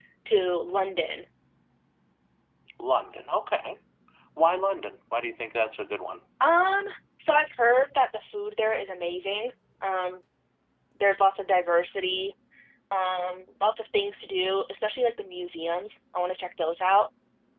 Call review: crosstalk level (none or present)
none